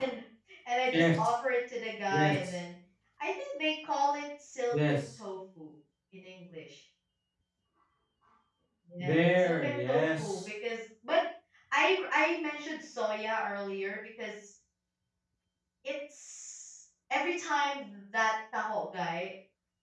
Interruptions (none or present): present